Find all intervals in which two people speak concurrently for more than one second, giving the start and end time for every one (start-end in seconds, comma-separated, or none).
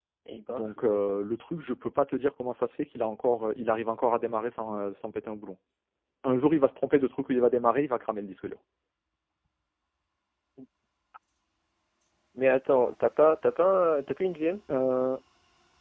none